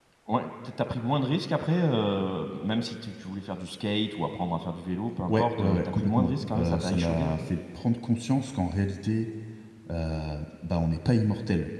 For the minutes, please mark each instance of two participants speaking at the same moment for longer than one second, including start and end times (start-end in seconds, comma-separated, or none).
5.3-7.4